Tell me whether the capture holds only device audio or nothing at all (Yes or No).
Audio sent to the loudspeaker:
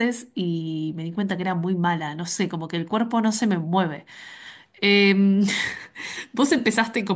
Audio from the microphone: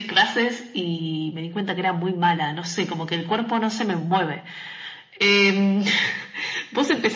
Yes